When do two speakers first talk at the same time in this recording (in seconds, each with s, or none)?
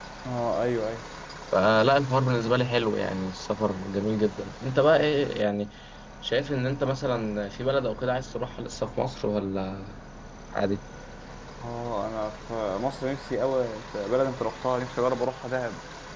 none